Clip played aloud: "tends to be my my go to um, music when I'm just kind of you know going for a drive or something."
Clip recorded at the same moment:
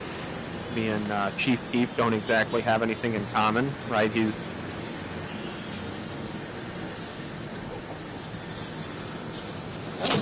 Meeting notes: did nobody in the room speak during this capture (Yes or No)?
No